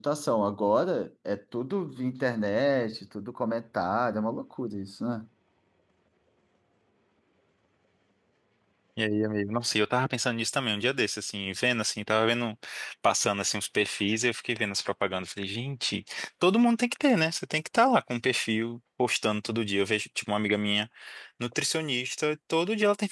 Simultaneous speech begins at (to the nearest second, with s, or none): none